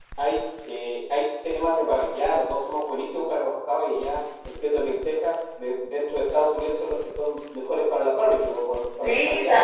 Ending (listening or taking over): taking over